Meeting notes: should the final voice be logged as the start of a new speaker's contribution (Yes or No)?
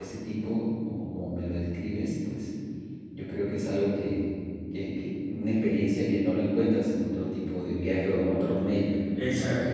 Yes